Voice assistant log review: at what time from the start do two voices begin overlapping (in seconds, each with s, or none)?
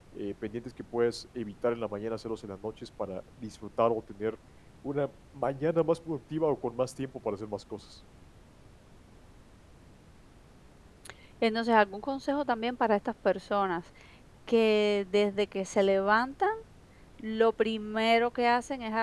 none